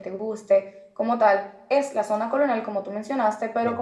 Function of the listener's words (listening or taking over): listening